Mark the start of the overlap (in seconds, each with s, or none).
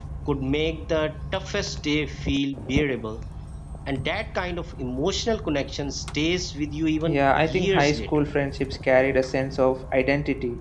7.1 s